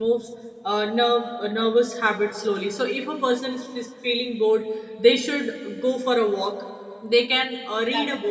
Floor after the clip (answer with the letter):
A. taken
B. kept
B